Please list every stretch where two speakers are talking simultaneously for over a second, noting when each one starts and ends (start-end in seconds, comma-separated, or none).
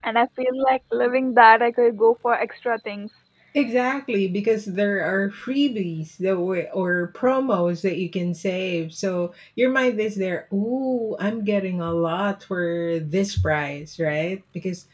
none